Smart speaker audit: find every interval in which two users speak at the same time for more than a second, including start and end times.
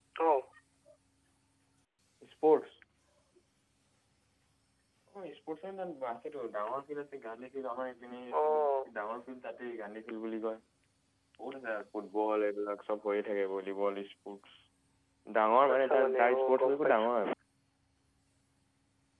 15.7-17.1

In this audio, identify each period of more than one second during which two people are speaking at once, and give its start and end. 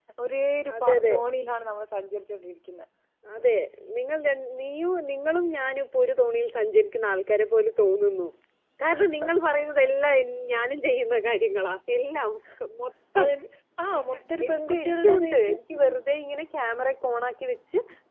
14.0-15.4

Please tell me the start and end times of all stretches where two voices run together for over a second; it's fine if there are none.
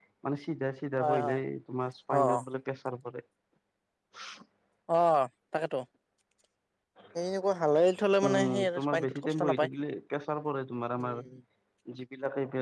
8.3-9.7

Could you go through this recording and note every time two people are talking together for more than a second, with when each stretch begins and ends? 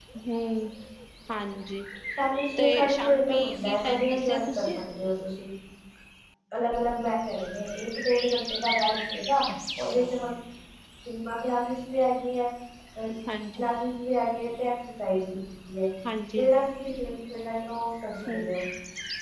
2.6-4.7

